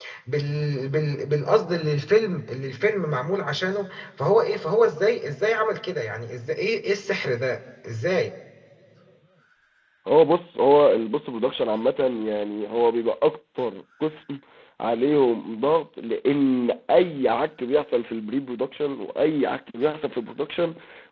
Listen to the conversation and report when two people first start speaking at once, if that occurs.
none

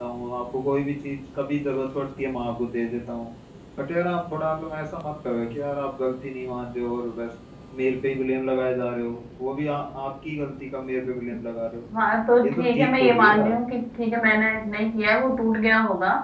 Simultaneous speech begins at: 12 s

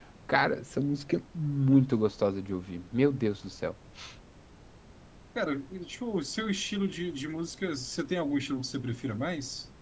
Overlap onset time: none

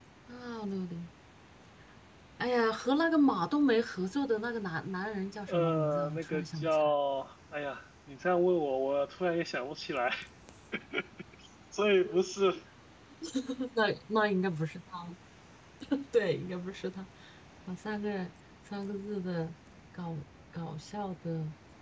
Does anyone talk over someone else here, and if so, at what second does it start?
5 s

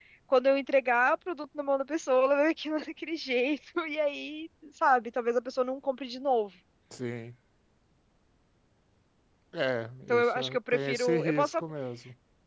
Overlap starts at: 10 s

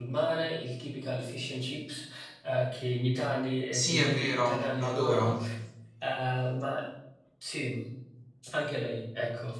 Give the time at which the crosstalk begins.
4 s

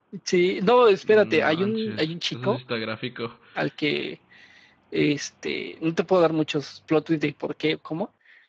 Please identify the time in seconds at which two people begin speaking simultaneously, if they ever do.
1 s

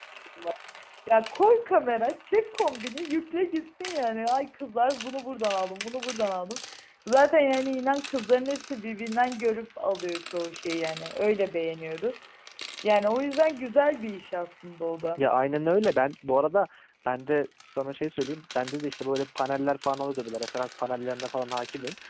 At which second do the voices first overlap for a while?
none

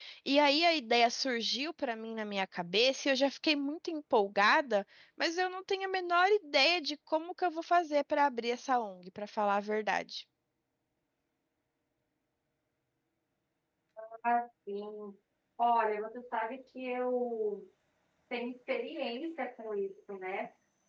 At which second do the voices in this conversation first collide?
none

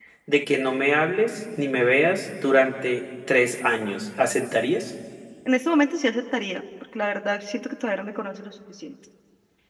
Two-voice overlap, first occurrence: none

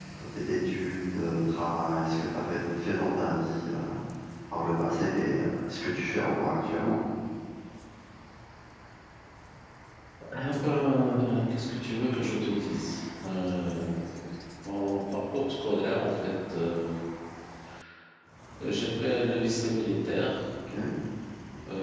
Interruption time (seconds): none

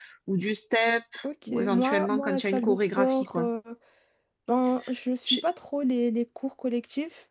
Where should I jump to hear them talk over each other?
1 s

